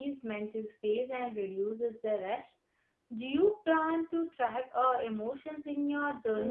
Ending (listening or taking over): taking over